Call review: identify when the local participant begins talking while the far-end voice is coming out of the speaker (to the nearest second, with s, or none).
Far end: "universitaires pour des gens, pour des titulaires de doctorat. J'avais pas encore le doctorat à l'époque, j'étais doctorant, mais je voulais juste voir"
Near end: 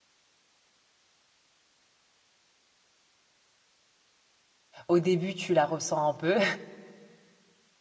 5 s